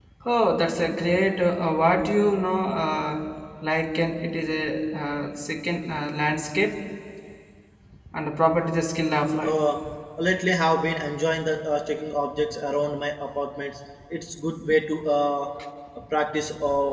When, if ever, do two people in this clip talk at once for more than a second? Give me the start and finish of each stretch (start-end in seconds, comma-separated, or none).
none